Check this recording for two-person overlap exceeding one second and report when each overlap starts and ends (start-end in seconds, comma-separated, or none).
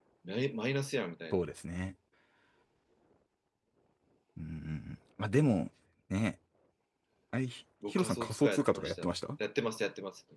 7.9-9.1